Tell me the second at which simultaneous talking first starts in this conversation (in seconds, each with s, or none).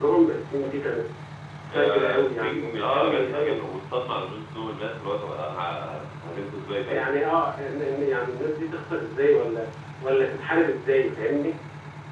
1.7 s